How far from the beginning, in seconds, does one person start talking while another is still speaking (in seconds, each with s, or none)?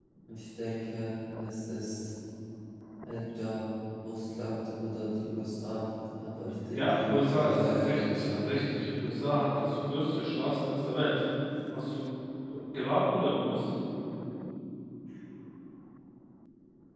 6.7 s